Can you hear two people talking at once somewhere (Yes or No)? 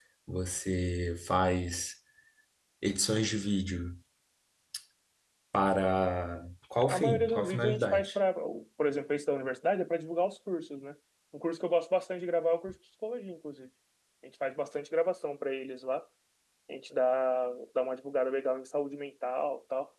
Yes